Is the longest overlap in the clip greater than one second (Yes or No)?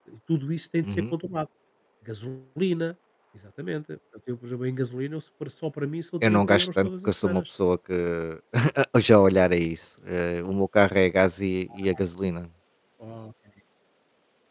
Yes